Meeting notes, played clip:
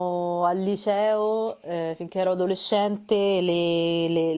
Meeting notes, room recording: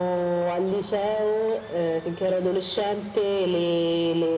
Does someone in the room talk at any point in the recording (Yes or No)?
No